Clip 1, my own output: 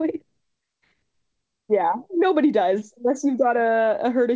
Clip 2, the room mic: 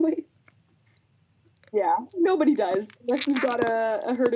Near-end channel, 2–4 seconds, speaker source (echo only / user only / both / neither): echo only